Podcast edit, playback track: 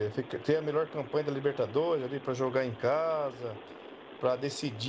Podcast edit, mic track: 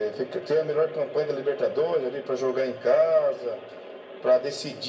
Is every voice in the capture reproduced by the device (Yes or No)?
Yes